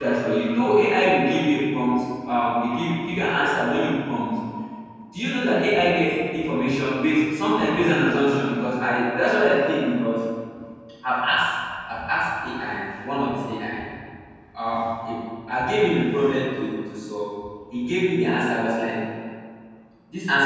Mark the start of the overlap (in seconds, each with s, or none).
none